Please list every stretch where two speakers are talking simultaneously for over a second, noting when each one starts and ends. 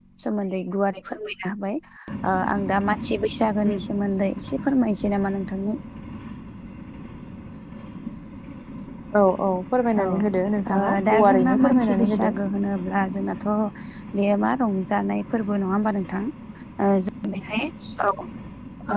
10.7-12.3

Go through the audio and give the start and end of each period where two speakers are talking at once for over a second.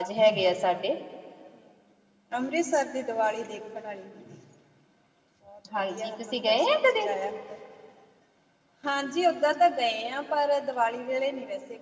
5.7-7.1

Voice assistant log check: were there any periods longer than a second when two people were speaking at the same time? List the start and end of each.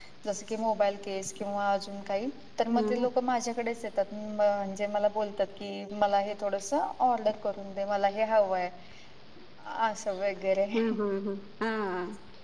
none

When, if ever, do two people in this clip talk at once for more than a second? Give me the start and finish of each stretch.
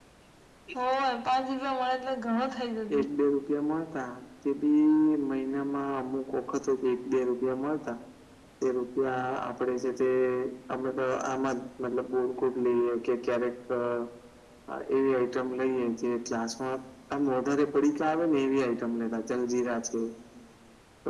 none

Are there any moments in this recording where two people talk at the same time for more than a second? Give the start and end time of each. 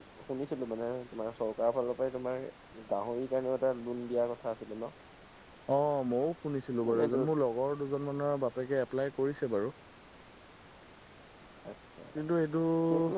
none

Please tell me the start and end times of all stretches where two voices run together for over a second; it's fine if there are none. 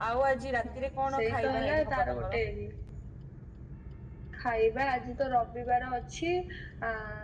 1.2-2.4

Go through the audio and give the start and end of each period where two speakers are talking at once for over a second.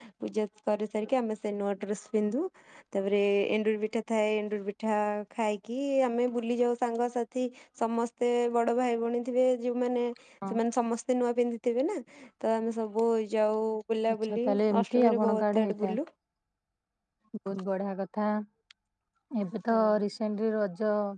14.2-15.9

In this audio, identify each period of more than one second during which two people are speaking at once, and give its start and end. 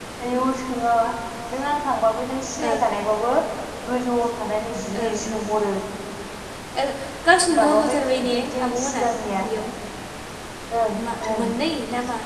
7.6-9.0

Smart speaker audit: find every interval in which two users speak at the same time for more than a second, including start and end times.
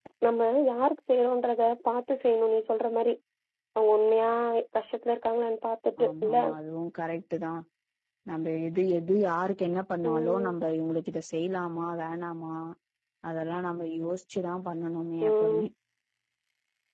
none

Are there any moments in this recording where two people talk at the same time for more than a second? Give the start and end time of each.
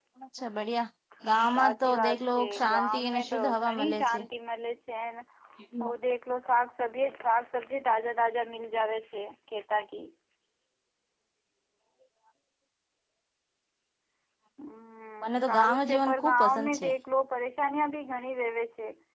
1.5-4.2, 15.4-16.9

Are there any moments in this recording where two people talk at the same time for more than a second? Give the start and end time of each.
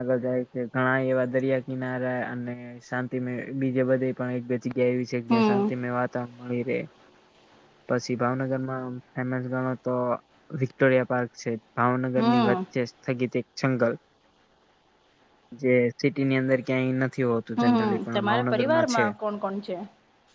17.8-19.0

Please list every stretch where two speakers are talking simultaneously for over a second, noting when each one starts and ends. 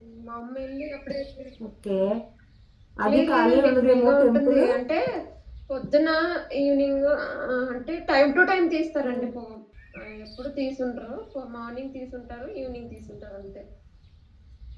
3.1-4.6

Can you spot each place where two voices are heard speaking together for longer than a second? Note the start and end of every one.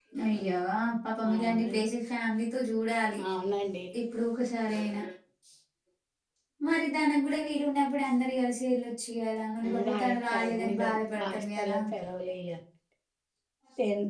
9.7-11.8

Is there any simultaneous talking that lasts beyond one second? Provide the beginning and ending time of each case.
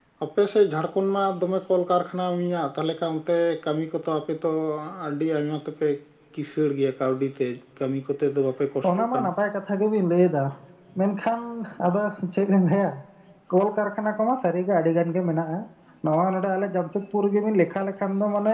none

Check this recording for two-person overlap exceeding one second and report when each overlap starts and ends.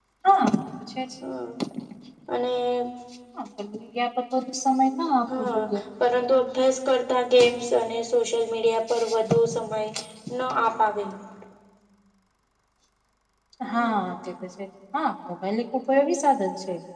none

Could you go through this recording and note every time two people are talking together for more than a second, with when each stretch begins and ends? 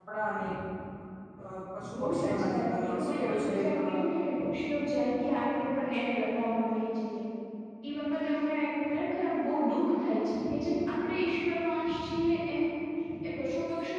2.0-4.1

